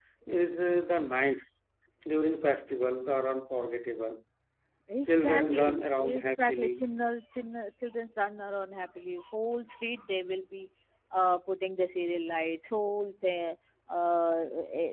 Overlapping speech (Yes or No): Yes